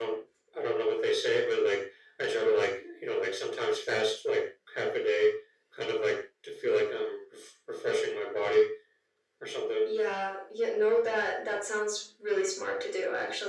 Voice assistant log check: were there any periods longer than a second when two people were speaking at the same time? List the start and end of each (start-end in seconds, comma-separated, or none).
none